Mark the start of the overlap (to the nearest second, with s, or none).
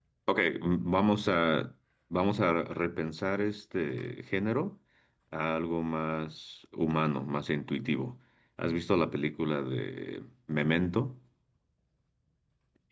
none